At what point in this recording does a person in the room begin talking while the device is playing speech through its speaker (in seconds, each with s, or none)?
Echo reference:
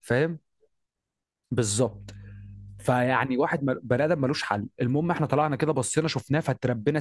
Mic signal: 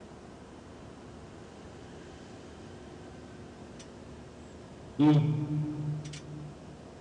5.0 s